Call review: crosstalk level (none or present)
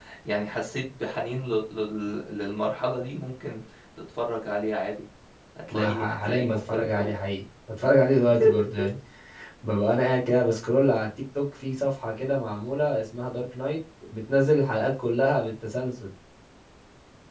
present